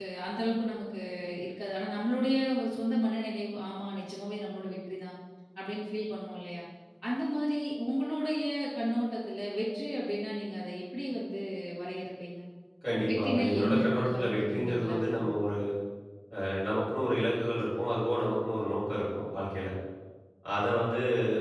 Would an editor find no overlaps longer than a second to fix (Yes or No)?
No